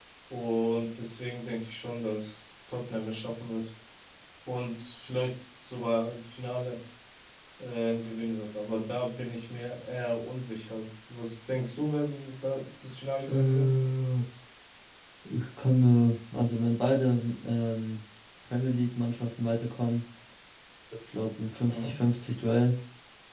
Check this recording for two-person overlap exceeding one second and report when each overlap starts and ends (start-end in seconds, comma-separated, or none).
none